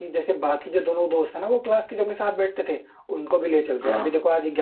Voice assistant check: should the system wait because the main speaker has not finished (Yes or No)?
Yes